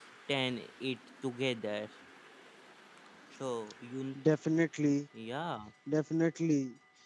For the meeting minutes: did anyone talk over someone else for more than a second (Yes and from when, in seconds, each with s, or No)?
No